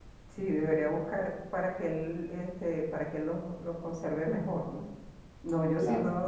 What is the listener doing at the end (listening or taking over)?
listening